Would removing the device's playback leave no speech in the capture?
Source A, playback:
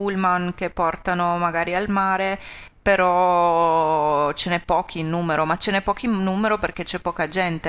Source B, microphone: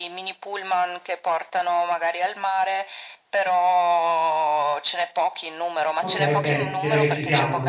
No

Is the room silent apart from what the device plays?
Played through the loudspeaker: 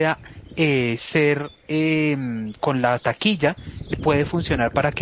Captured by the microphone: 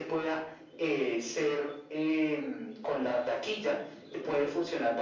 Yes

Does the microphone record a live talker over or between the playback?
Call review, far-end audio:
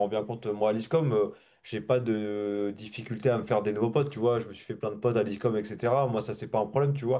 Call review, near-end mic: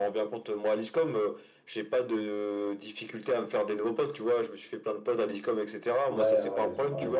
Yes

